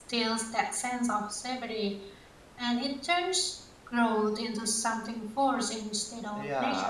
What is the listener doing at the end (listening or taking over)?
taking over